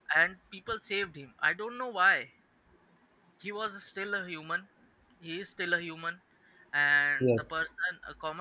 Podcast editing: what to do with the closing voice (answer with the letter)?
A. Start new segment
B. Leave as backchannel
B